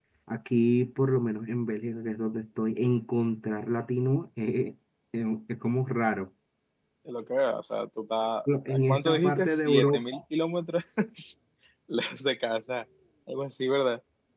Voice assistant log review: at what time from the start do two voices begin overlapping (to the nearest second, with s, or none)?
8 s